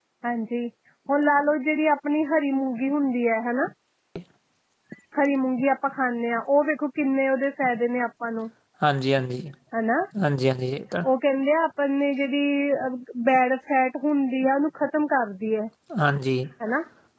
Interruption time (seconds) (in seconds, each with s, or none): none